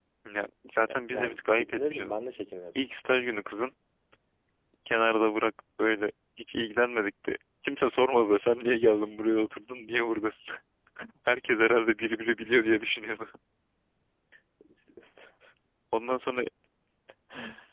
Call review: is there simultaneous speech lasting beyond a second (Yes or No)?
Yes